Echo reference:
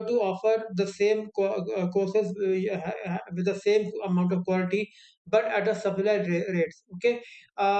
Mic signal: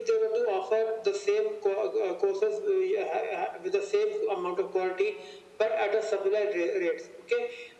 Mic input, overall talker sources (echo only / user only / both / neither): echo only